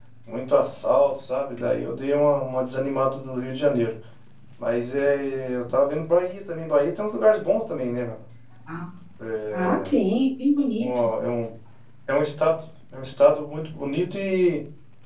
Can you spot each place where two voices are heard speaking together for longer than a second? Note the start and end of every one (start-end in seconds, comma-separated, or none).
none